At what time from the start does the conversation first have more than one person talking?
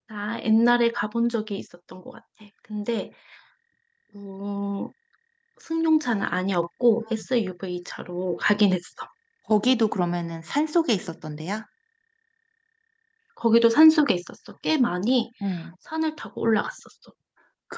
none

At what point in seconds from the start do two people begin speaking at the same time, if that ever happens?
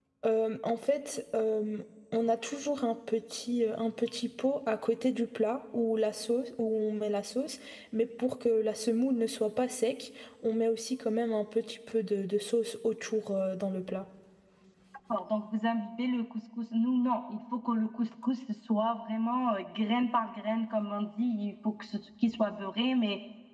none

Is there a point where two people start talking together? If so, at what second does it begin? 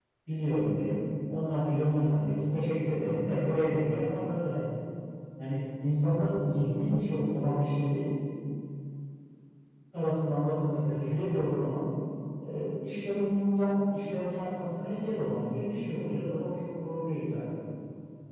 none

